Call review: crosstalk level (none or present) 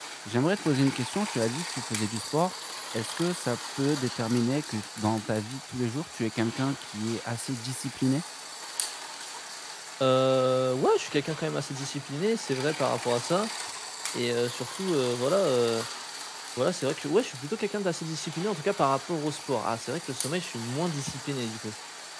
none